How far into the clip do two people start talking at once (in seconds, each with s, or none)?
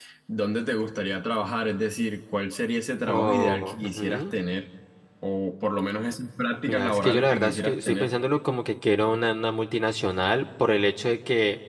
3.1 s